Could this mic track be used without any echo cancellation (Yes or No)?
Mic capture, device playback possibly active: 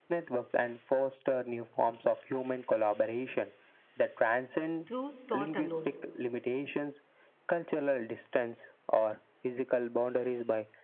No